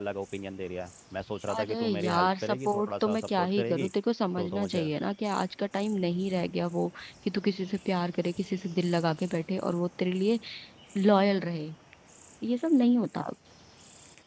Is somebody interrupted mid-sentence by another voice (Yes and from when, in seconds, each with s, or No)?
Yes, from 1.6 s